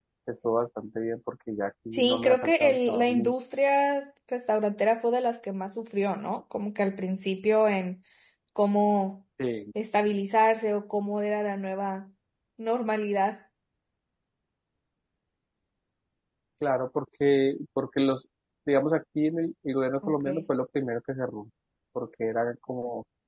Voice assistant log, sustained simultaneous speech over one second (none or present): present